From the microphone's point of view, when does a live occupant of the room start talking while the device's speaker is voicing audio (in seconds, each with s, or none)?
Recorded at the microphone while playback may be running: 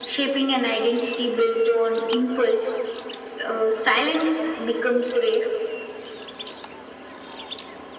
none